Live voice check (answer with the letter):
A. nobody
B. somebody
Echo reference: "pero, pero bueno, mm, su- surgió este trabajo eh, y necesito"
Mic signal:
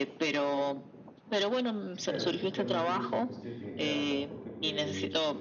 B